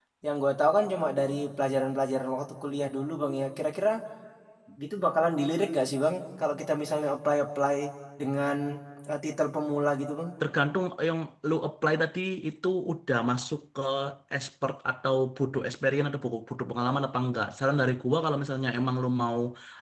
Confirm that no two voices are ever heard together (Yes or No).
Yes